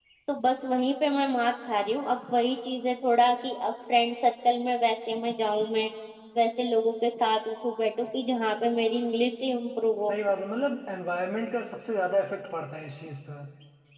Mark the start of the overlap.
none

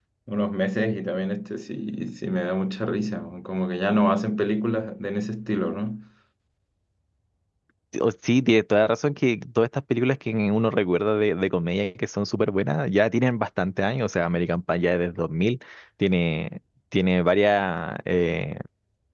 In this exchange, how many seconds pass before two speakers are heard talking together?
none

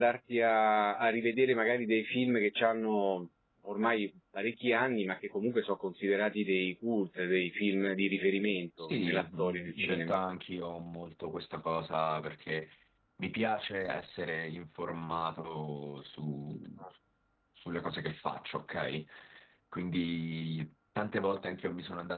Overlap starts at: 9 s

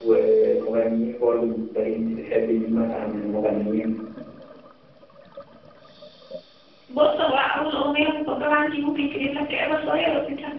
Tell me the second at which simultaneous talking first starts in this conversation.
none

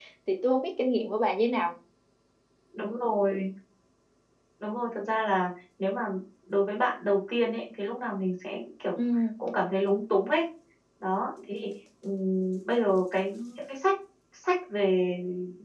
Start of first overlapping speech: none

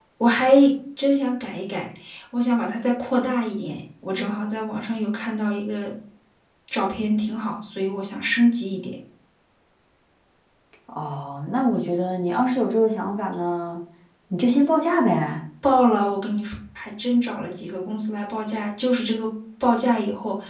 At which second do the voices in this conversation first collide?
none

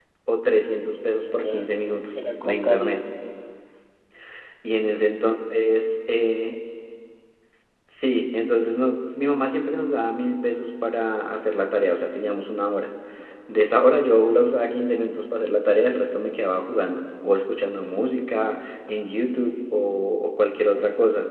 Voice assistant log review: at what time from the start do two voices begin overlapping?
1 s

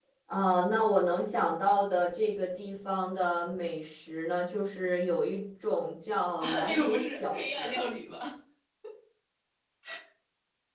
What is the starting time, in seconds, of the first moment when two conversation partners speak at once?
6 s

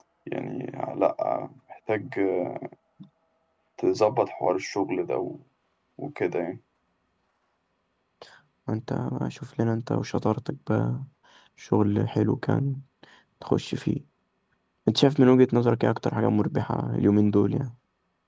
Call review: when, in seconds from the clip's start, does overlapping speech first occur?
none

